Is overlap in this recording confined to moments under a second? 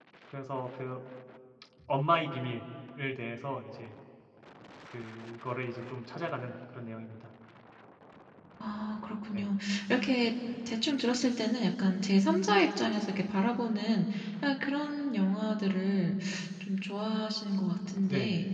Yes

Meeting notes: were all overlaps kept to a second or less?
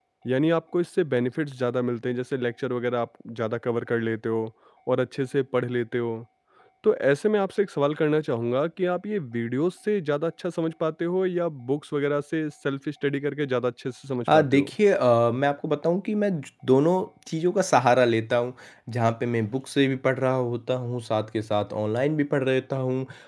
Yes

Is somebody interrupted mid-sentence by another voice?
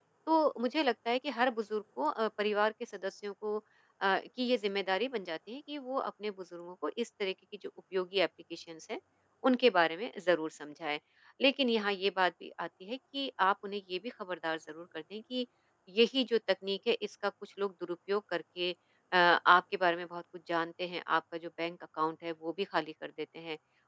No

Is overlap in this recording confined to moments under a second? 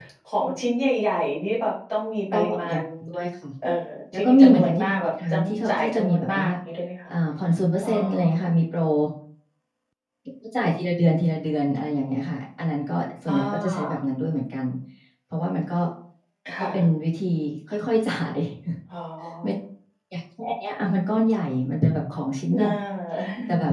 No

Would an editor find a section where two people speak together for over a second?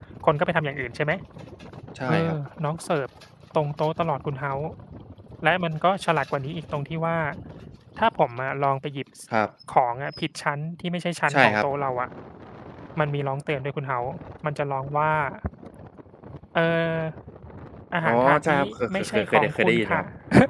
Yes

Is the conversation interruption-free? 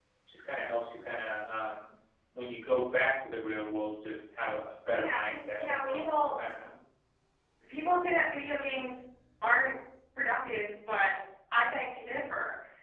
No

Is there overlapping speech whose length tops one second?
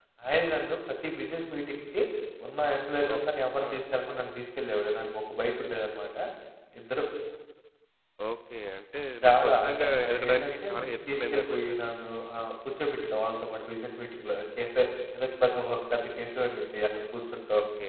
Yes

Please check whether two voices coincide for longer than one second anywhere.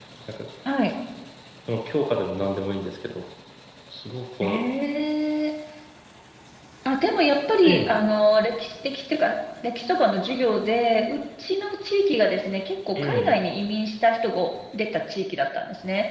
No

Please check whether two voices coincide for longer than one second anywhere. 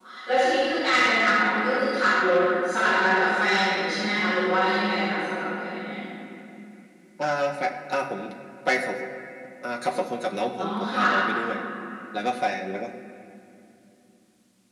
No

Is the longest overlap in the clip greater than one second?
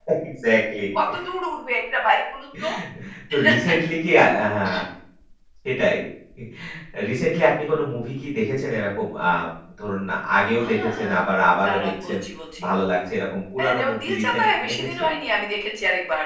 Yes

